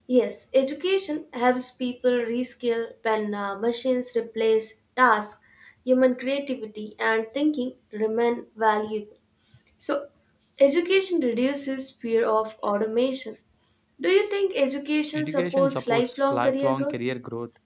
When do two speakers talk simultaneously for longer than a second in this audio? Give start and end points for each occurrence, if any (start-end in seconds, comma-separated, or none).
15.2-17.0